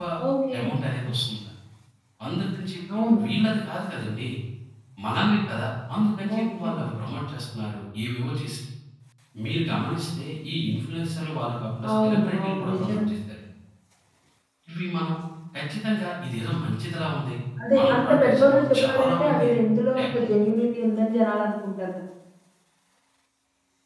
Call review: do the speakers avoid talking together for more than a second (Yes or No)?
No